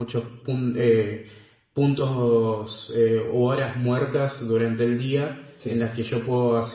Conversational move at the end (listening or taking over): listening